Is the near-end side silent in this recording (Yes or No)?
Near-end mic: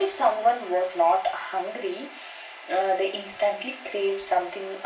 Yes